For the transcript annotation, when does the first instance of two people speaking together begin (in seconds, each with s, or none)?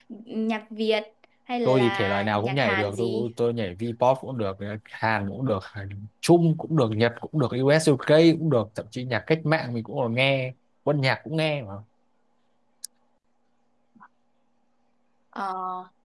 1.6 s